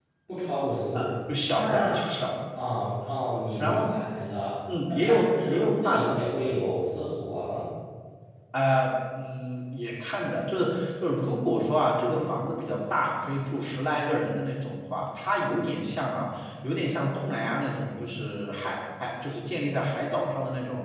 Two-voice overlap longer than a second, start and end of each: 4.9-6.1

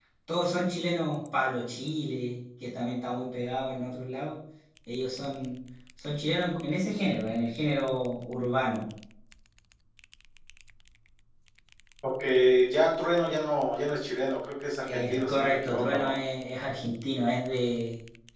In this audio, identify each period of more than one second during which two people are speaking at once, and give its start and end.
14.8-16.2

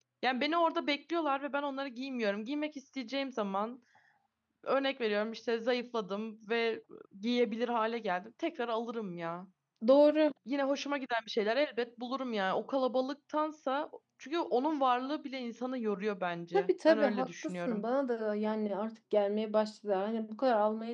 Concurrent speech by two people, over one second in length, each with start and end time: 16.5-17.8

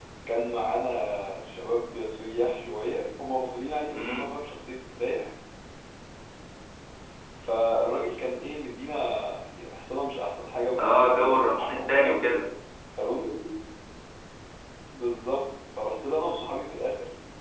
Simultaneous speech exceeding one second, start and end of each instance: 10.8-12.1

